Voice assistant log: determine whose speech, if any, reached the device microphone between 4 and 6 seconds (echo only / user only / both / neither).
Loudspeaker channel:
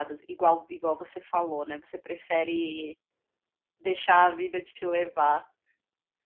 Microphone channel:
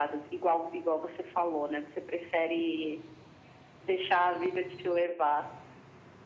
echo only